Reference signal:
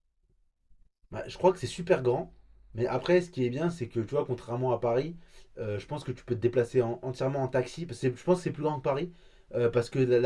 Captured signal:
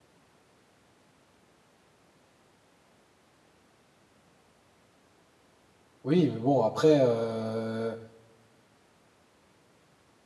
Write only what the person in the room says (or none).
Oui, mais bon, après, euh,